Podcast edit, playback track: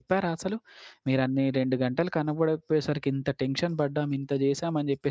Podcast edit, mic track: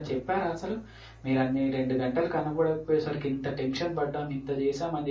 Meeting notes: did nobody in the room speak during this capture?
Yes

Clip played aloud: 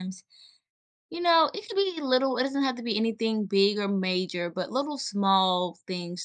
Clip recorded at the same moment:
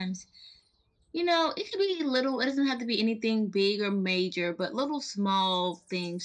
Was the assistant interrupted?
No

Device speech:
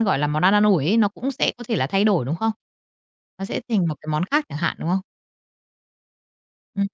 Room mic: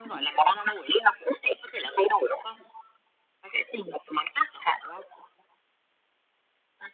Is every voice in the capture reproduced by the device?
Yes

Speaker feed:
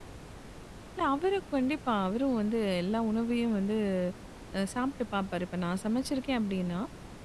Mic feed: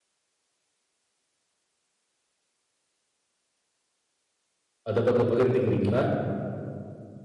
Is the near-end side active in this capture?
Yes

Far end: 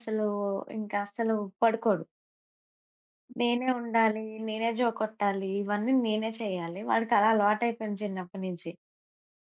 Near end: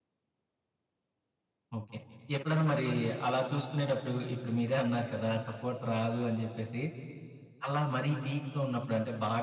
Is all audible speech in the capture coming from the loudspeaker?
No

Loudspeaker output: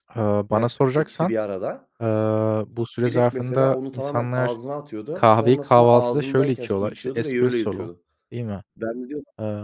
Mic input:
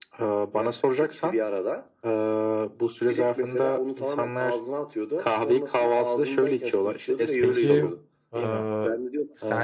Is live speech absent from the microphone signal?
No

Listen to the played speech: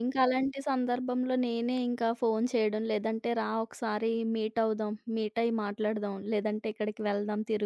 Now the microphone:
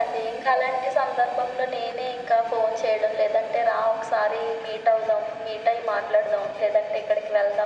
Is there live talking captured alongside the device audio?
No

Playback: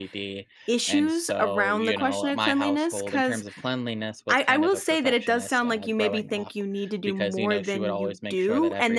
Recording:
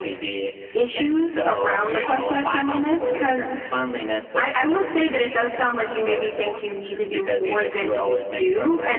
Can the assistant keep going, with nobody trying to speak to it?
Yes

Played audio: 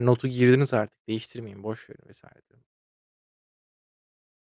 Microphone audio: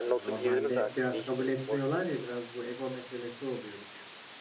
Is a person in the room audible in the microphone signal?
Yes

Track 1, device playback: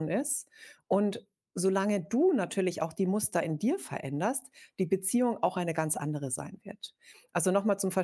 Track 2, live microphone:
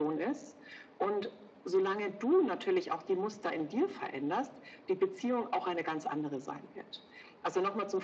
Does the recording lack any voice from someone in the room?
Yes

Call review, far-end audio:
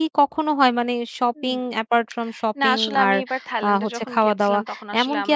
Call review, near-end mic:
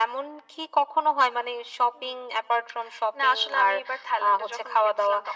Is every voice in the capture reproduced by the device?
Yes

